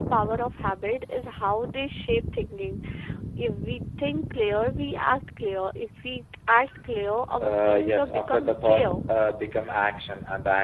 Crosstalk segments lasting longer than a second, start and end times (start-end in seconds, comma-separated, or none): 7.4-9.0